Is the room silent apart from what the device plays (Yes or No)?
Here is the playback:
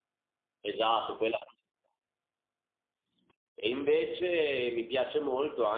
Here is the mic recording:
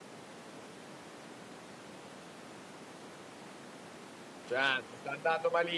No